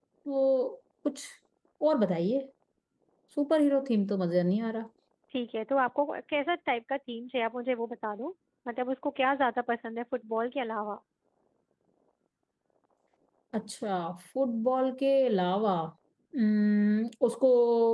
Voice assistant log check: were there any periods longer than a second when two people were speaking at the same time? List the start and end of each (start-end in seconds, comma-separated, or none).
none